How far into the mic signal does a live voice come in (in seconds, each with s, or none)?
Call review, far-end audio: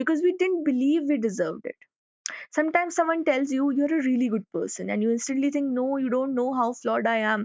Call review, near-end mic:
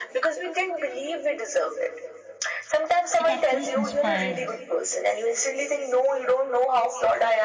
3.2 s